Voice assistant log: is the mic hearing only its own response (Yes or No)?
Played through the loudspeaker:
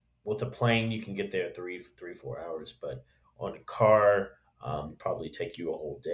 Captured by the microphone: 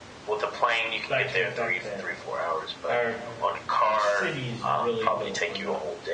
No